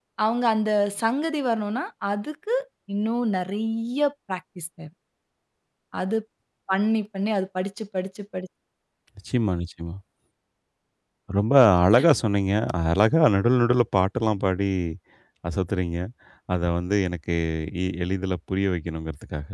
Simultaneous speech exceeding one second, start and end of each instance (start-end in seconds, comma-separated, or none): none